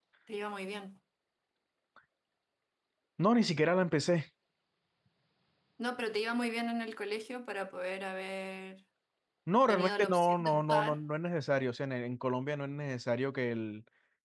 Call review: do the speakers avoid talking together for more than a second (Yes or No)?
No